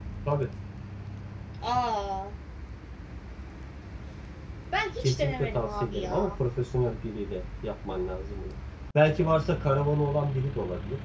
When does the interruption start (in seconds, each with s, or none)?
5.0 s